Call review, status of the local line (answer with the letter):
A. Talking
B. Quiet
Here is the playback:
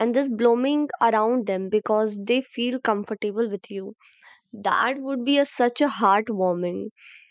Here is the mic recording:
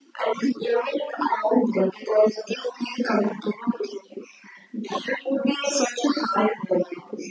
B